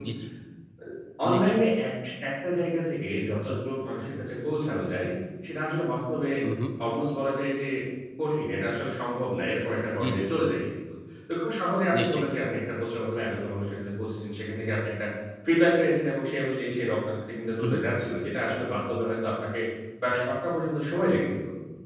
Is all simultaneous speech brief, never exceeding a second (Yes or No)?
Yes